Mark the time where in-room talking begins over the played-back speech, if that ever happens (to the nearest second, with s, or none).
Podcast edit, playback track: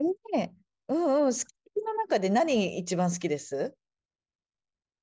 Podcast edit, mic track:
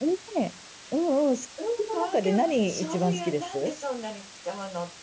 2 s